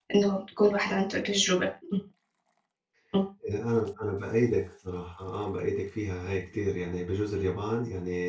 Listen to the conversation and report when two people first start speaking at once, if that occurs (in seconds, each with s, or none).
none